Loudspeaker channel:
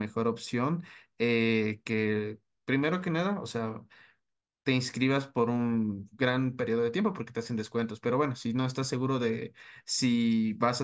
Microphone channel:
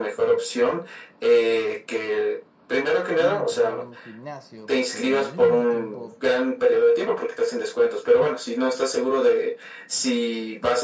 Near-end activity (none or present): present